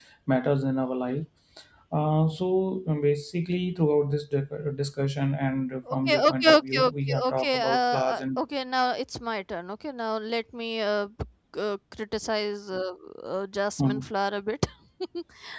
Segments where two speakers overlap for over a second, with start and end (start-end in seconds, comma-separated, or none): 5.9-8.4